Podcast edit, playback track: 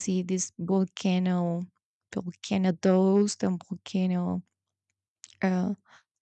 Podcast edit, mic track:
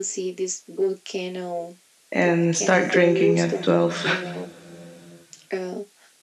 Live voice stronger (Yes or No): Yes